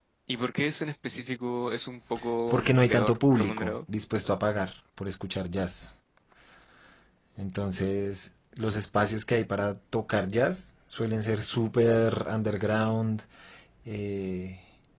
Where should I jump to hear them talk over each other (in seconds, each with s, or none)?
2.5 s